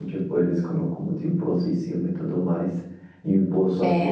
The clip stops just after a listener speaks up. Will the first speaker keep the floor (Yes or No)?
Yes